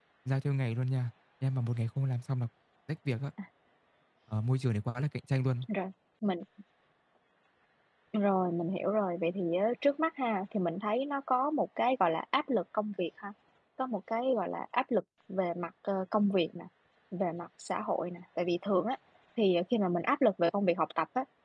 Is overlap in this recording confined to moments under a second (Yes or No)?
Yes